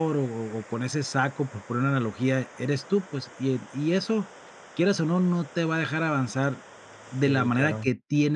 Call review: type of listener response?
listening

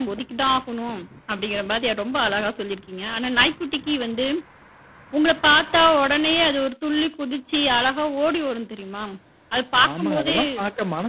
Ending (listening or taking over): taking over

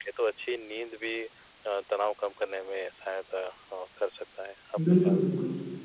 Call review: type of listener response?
taking over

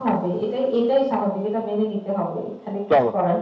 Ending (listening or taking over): taking over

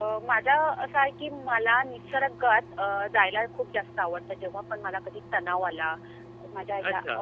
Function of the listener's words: taking over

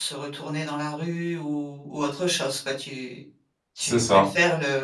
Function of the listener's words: listening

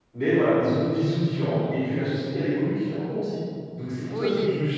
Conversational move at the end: listening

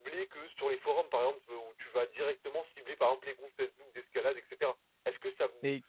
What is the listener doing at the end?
listening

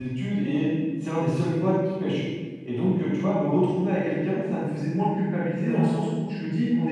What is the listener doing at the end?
listening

